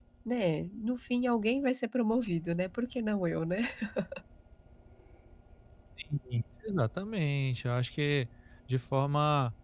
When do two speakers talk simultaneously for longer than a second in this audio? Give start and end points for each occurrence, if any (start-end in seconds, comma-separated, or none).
none